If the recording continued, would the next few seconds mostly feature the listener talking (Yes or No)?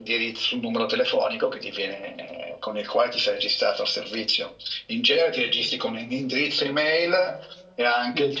No